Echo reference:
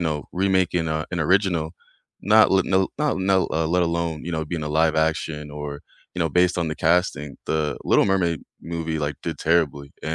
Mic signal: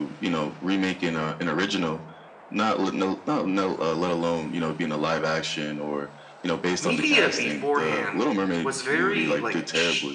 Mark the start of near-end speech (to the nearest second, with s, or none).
7 s